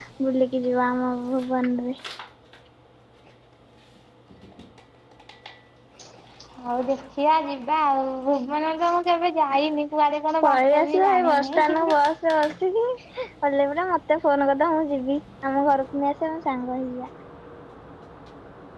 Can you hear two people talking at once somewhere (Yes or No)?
Yes